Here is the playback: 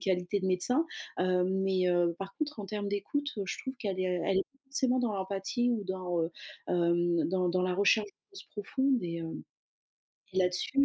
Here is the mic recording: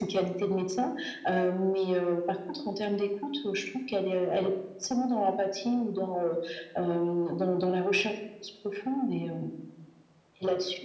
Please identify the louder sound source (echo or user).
echo